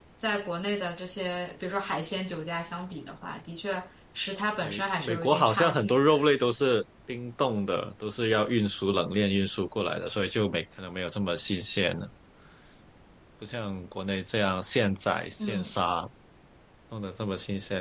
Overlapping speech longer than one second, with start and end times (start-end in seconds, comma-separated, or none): 4.6-6.0